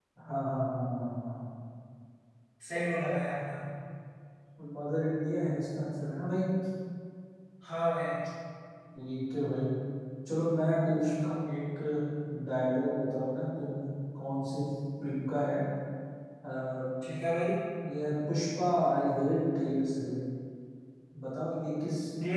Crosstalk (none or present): none